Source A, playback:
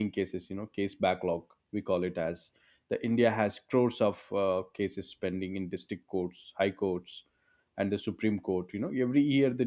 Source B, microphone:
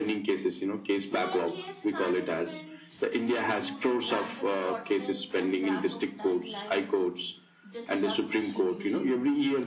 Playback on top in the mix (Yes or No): Yes